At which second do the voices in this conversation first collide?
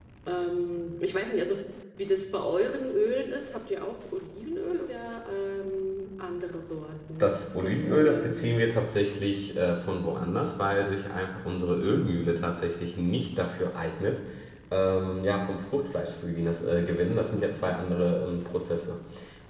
7.2 s

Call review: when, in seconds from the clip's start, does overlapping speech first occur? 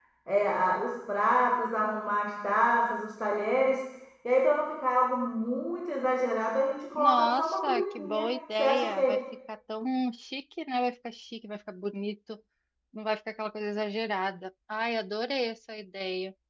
6.9 s

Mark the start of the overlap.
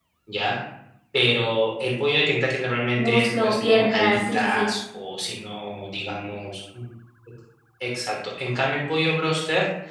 3.0 s

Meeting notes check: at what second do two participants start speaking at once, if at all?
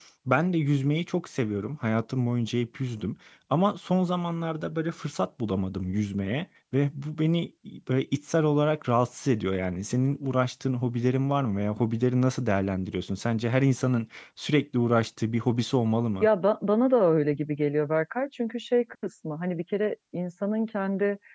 none

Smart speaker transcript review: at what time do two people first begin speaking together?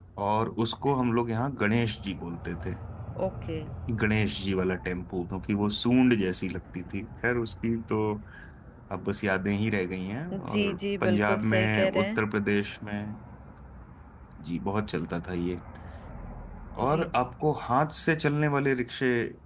10.3 s

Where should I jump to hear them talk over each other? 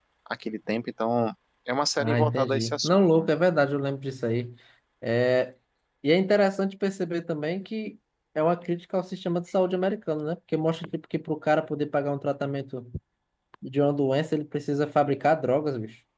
2.0 s

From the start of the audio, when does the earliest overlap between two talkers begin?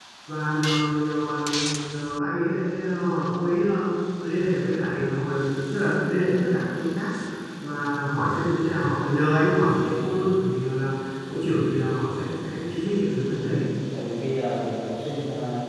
none

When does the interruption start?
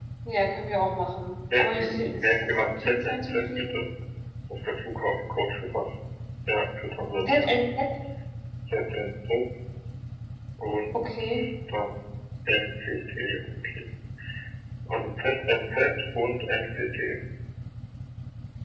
1.6 s

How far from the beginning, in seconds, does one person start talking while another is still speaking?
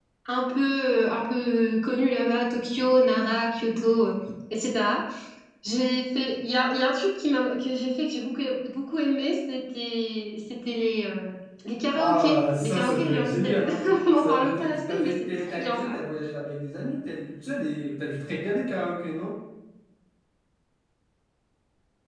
11.9 s

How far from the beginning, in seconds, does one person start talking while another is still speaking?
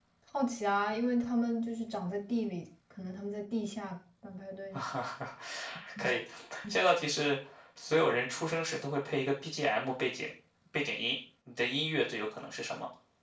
none

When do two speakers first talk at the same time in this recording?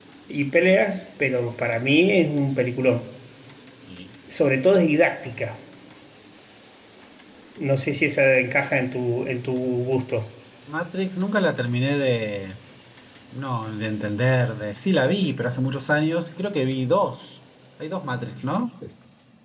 none

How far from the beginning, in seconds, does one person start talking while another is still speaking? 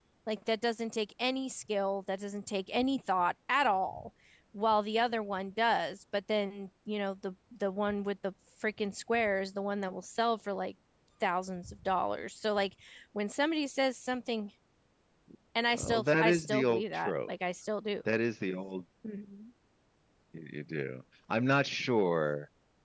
15.7 s

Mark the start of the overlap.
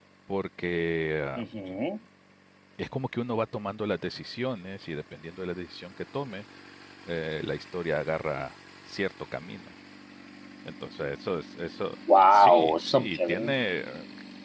12.3 s

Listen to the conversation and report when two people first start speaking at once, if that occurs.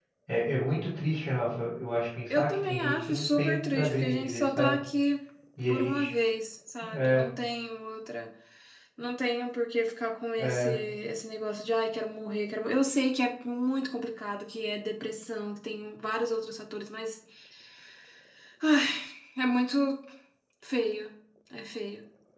2.3 s

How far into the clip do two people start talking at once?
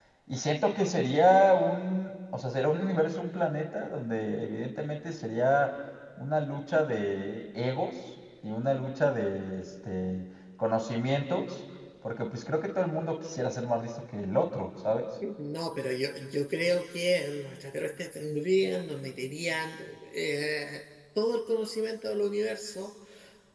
none

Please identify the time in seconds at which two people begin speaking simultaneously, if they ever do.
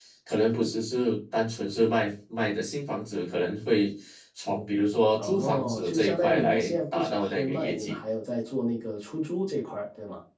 5.2 s

